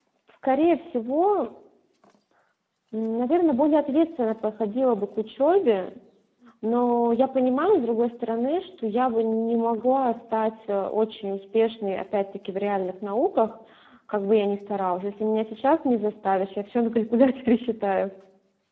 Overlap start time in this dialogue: none

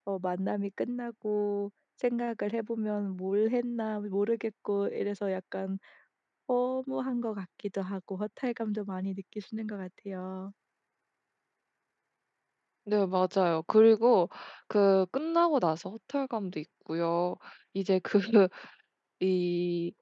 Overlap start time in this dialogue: none

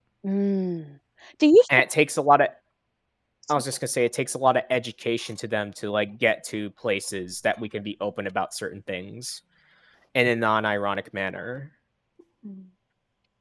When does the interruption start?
none

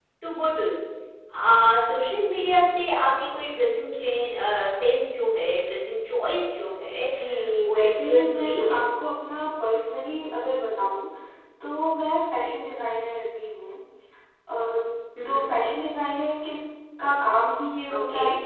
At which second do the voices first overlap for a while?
8 s

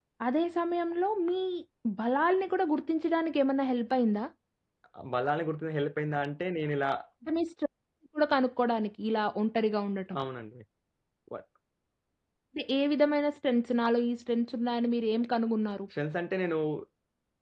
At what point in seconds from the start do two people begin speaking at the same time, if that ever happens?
none

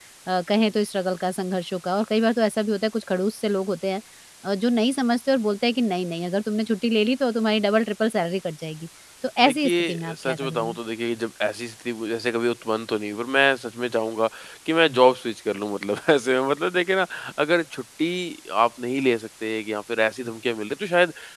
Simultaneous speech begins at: 9 s

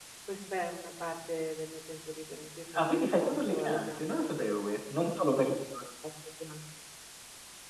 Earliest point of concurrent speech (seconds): 3 s

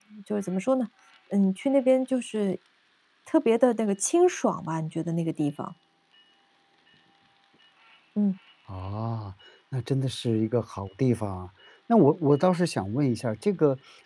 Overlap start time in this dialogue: none

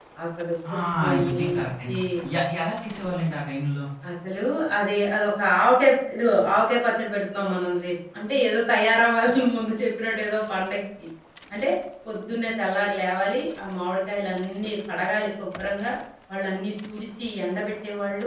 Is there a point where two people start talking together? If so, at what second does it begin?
1 s

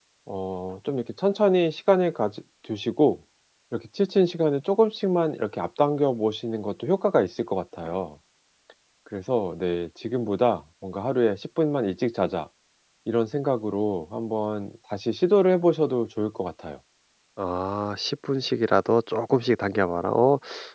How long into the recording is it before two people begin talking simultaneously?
none

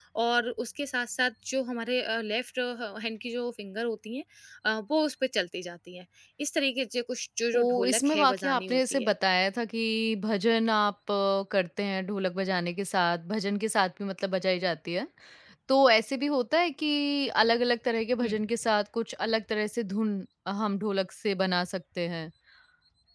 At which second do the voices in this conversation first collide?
8 s

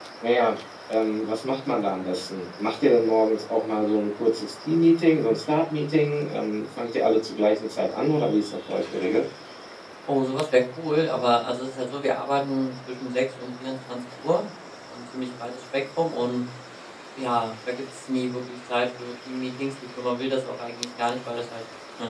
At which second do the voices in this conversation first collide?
none

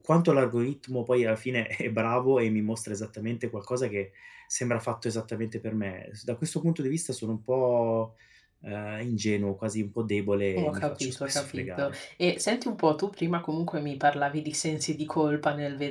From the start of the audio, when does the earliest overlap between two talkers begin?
11 s

